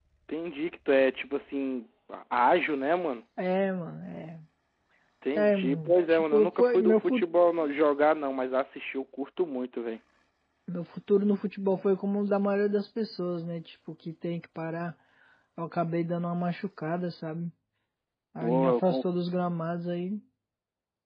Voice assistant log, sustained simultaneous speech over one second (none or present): present